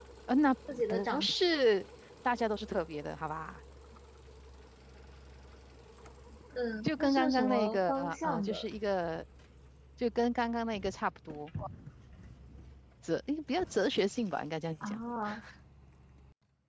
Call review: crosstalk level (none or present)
present